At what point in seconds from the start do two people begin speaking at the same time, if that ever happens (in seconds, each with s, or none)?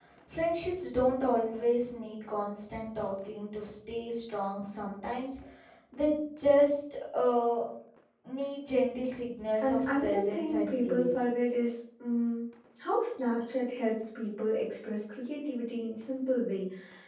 9.6 s